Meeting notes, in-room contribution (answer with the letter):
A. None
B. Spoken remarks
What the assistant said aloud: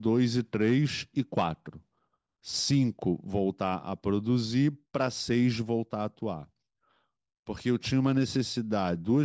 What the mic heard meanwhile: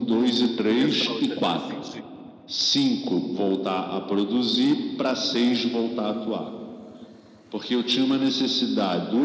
B